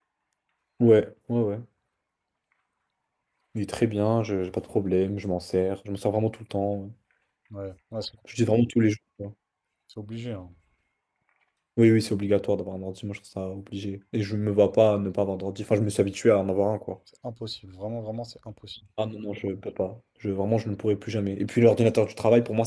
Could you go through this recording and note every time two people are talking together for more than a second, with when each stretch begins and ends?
none

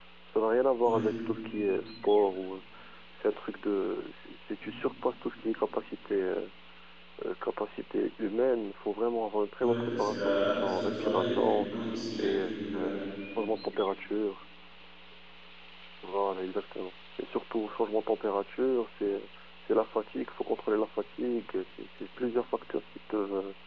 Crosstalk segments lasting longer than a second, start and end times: 9.6-11.7

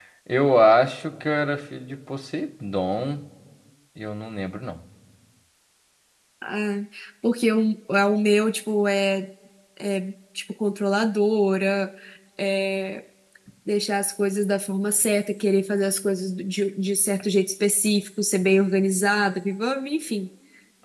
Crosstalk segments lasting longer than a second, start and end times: none

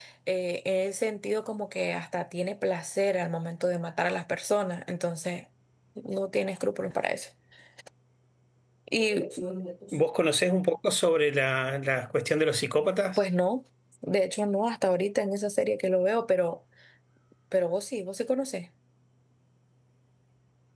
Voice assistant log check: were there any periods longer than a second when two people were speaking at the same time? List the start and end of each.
none

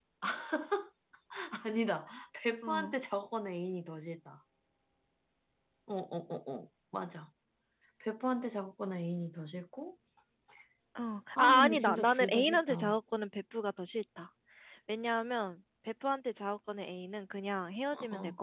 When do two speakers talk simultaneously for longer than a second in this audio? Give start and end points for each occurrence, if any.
11.4-13.0

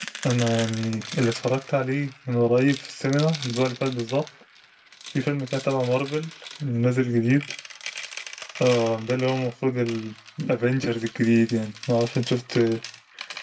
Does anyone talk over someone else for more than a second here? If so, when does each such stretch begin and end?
none

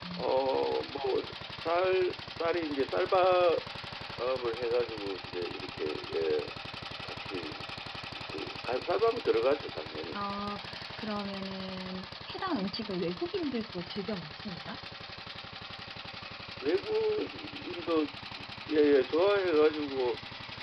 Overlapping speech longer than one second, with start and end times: none

